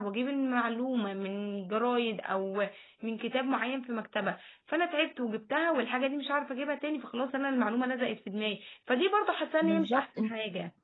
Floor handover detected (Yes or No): No